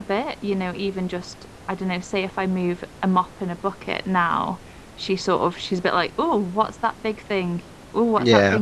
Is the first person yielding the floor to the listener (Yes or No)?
No